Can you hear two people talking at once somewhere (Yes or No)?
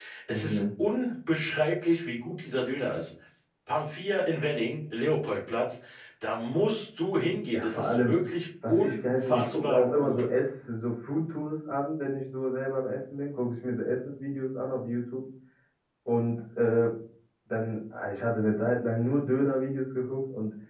Yes